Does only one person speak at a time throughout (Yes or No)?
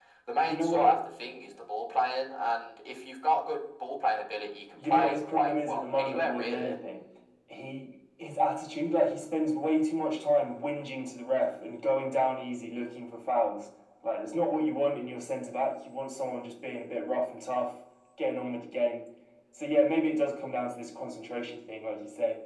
No